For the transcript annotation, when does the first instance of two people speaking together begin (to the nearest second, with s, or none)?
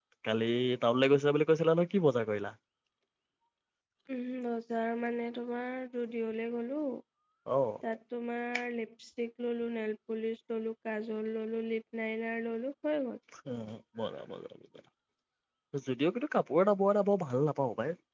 none